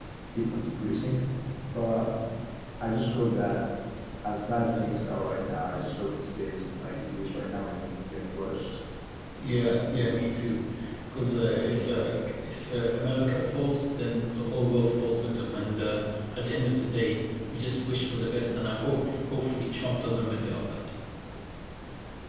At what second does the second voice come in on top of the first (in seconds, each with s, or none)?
none